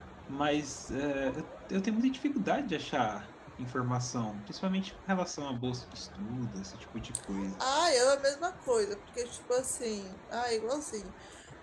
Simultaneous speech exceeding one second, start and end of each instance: none

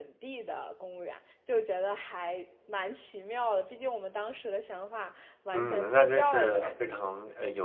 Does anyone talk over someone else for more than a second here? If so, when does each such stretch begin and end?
5.5-7.0

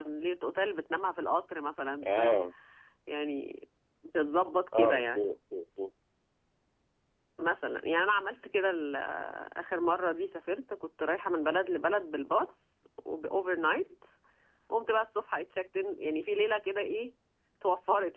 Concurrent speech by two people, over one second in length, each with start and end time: none

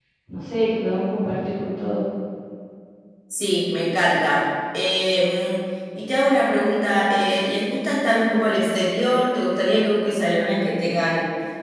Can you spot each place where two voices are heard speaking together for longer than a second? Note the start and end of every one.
none

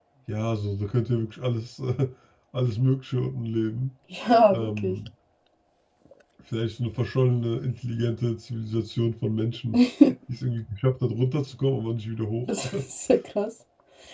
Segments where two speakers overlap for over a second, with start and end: none

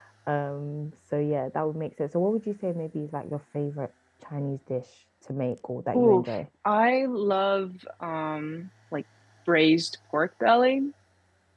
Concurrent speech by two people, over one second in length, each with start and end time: none

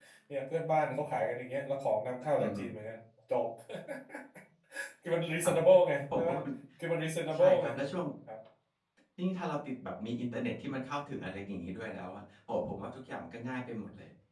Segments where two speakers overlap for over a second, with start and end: none

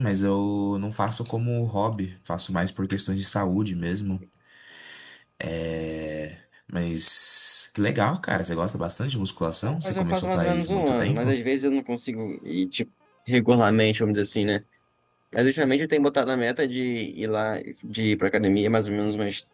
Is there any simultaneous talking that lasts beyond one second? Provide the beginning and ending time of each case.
9.8-11.4

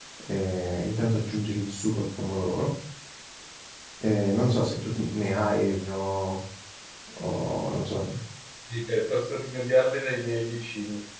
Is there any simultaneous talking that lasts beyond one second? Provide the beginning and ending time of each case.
none

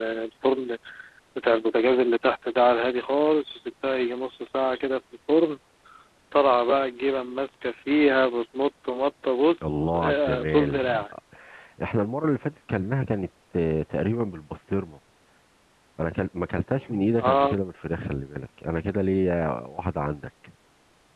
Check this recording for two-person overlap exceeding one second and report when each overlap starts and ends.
9.6-11.0

